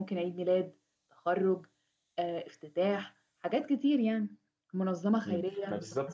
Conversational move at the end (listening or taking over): taking over